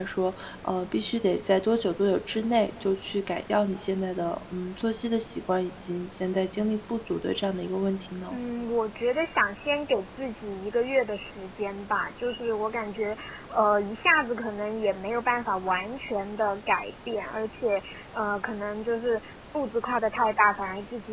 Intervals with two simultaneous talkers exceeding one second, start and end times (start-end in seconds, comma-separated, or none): none